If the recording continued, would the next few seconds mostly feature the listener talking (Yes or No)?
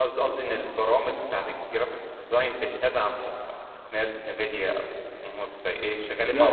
Yes